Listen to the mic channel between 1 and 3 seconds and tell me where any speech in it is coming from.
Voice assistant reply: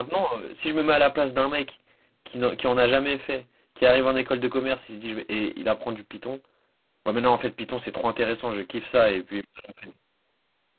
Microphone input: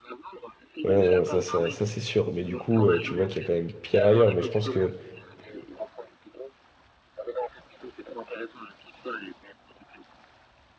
both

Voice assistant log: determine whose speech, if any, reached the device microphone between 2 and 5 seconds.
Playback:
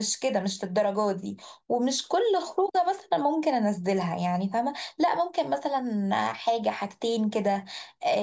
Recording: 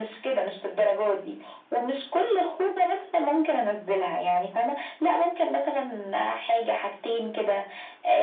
echo only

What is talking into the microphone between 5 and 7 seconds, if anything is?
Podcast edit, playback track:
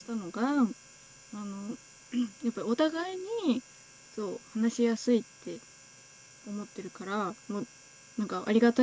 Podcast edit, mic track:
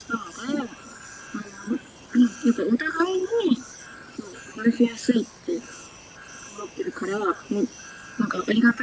echo only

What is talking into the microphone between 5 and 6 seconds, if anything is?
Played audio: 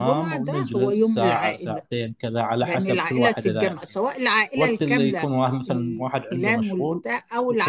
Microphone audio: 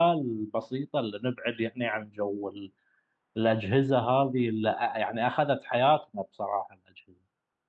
user only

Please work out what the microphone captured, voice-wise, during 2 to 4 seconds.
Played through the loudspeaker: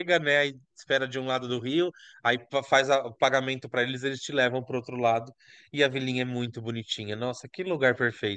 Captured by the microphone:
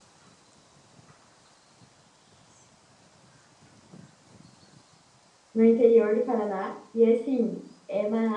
neither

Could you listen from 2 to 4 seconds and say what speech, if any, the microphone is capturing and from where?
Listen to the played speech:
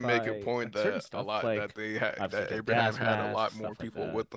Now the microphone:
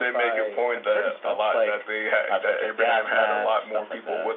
echo only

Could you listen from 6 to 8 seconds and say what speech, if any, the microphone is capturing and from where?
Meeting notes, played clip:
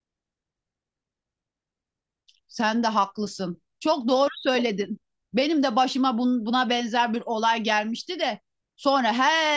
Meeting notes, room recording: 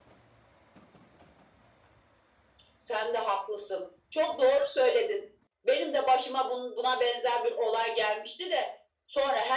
echo only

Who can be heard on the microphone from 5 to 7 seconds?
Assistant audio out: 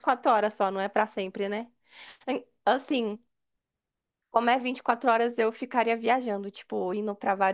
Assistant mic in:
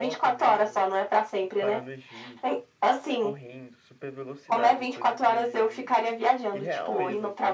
both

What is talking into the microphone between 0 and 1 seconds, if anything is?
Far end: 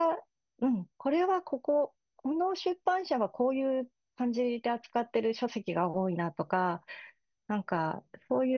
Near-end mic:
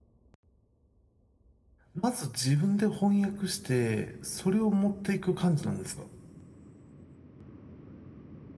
neither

